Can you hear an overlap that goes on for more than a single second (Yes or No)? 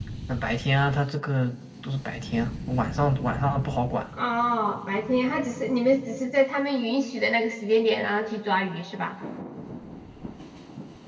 No